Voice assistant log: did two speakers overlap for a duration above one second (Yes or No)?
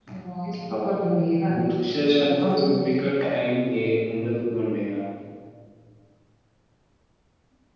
Yes